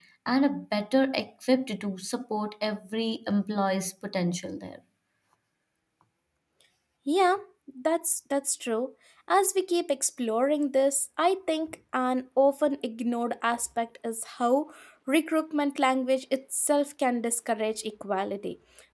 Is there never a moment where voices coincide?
Yes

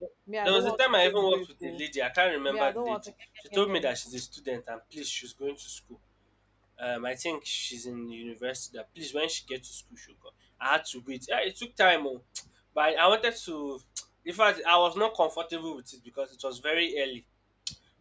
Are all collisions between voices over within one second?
No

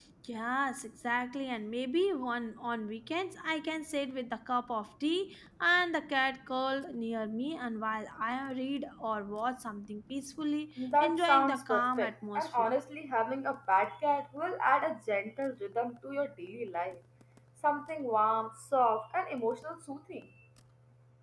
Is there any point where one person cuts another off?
Yes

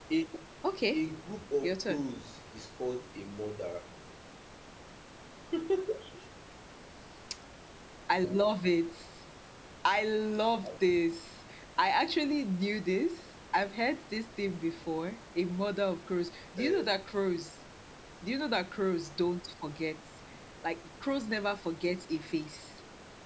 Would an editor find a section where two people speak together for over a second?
No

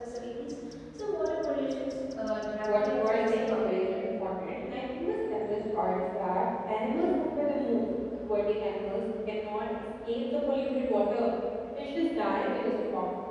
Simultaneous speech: Yes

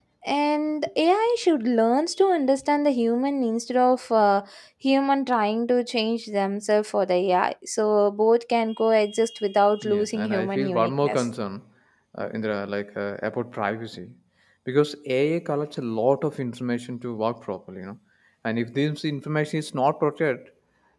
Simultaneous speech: Yes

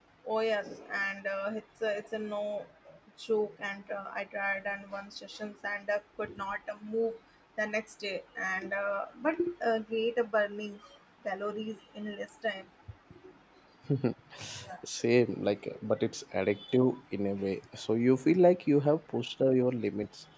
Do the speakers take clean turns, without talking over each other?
Yes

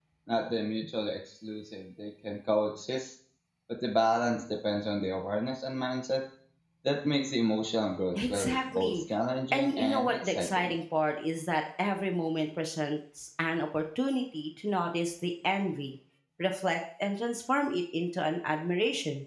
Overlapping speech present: Yes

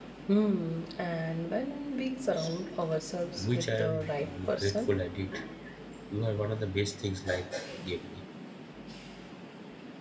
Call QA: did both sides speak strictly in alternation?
No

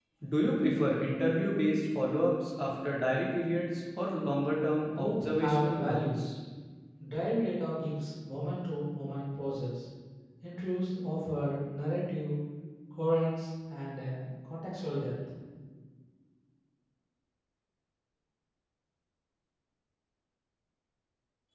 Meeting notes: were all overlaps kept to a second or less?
No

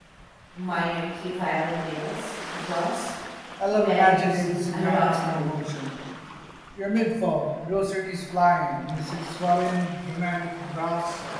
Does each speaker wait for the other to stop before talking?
No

